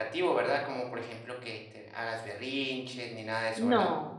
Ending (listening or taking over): taking over